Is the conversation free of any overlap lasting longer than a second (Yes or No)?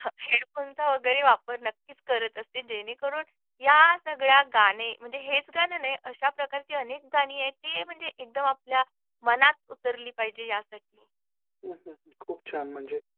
Yes